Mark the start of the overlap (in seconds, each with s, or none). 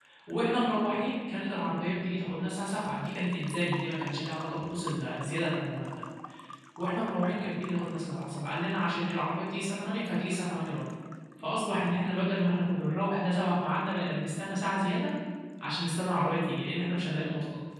none